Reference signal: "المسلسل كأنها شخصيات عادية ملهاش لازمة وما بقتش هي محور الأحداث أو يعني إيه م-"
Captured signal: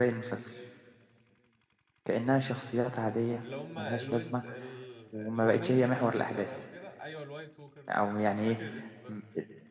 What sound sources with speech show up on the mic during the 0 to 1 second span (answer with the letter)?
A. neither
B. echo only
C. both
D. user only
B